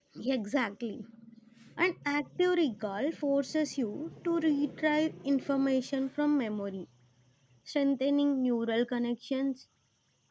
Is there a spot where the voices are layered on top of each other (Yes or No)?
No